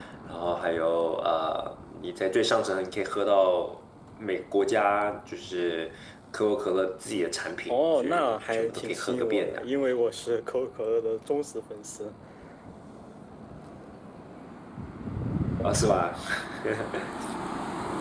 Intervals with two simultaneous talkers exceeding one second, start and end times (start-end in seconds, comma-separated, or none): 7.7-9.6